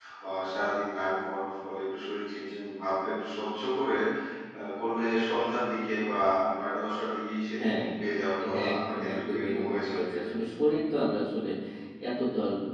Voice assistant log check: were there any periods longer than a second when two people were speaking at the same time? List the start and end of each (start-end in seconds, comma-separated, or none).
8.5-10.3